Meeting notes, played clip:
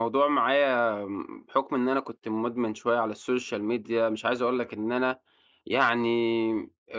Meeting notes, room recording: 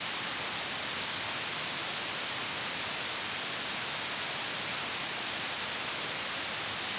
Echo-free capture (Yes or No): Yes